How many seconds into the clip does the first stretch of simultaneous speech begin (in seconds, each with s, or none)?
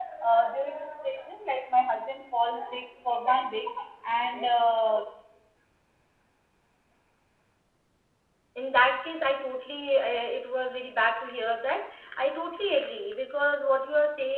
none